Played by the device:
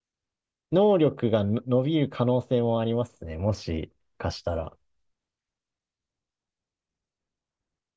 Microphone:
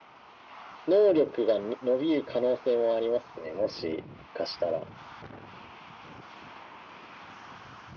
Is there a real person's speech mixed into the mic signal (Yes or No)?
No